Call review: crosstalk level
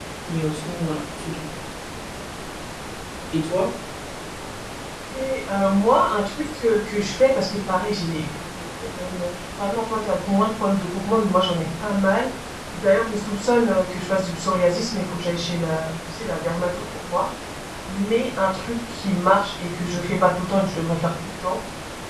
none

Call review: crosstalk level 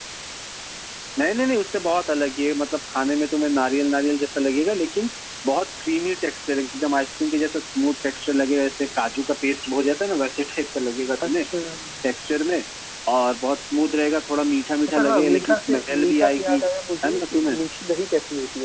present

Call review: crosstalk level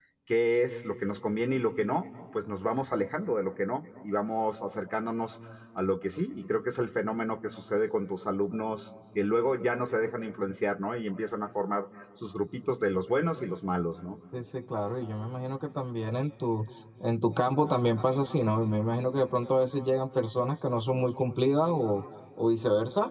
none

